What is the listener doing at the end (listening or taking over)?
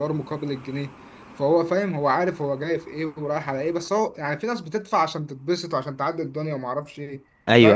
taking over